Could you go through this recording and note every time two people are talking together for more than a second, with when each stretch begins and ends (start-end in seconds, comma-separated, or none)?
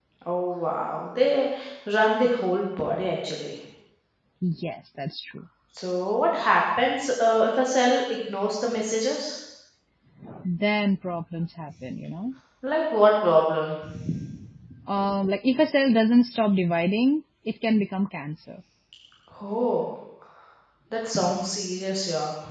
none